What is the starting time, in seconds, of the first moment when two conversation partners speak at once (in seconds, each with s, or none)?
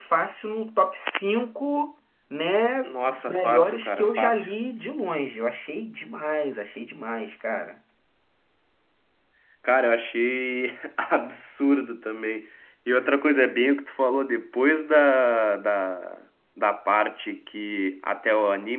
3.3 s